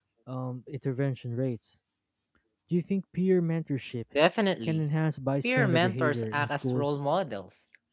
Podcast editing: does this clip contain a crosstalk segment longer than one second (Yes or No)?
Yes